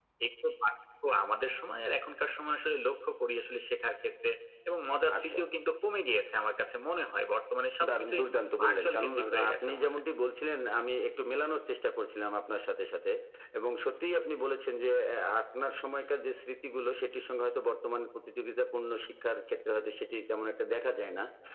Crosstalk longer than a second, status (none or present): present